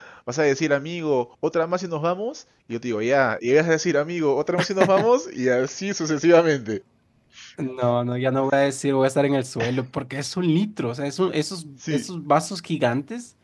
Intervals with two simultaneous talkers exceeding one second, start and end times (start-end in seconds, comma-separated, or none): none